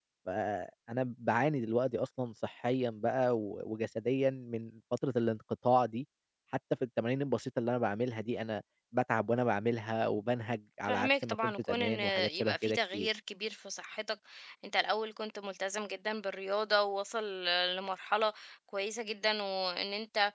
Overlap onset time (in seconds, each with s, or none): 10.8 s